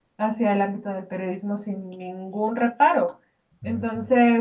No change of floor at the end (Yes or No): Yes